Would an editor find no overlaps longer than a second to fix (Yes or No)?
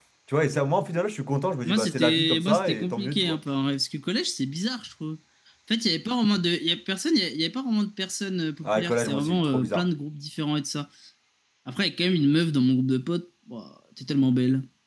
No